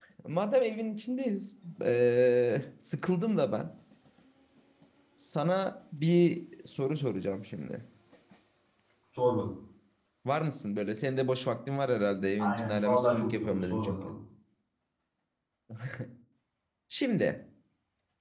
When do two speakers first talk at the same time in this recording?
12.4 s

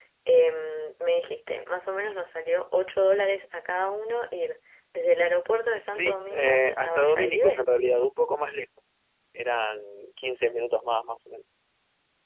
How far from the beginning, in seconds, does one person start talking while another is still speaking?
5.9 s

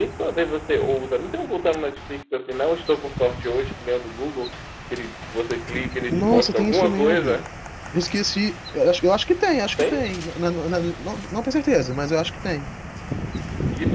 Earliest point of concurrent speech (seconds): 6.1 s

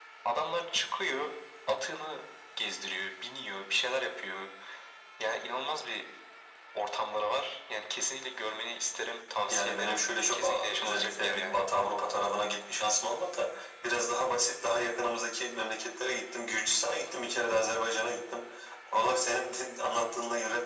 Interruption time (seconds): 9.5 s

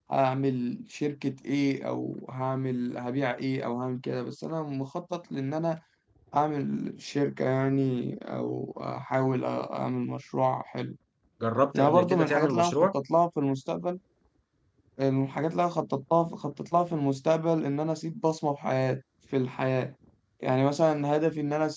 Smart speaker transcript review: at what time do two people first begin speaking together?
11.7 s

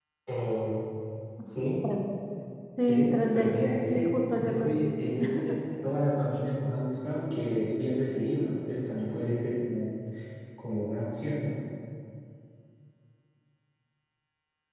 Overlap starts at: 2.8 s

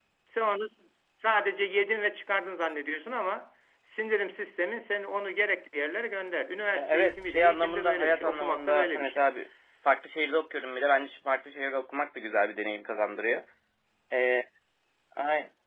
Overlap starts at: 6.7 s

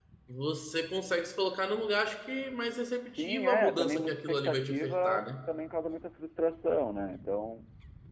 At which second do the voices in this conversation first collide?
3.1 s

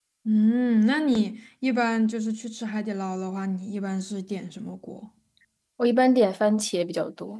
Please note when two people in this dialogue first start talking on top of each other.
none

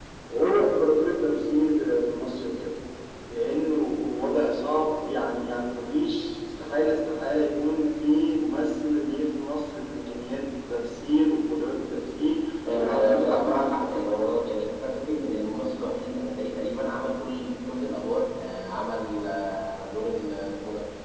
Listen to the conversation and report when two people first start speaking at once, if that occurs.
12.6 s

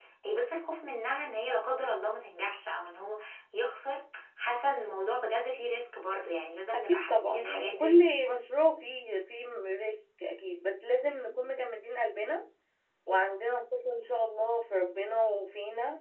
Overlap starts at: 6.7 s

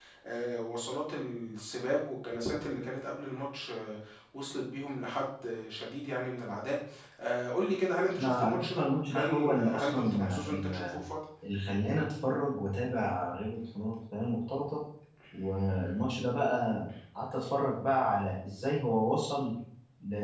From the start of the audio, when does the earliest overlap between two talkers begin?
8.2 s

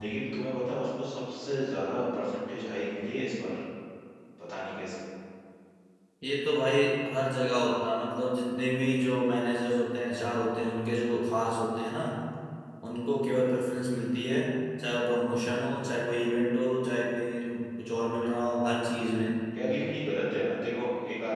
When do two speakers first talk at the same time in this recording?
none

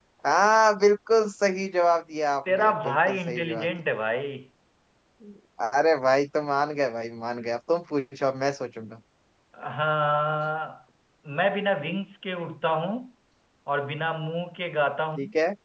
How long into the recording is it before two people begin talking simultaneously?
2.5 s

